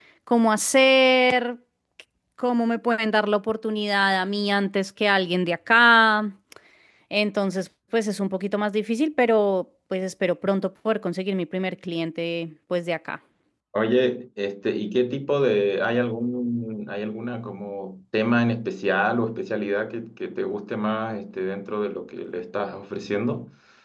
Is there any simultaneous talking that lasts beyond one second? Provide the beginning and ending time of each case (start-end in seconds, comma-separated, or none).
none